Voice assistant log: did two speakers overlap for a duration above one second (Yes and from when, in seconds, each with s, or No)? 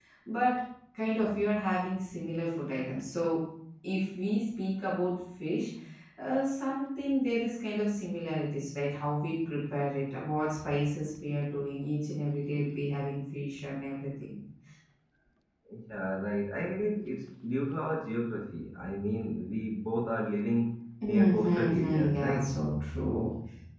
Yes, from 21.1 s